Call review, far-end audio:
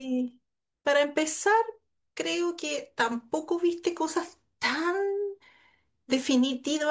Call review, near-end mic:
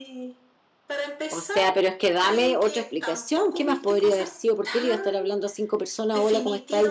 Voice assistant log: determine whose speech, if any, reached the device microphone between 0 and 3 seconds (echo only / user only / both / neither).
both